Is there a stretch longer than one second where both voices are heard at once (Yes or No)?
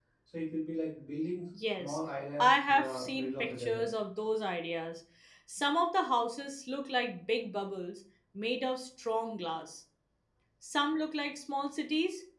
Yes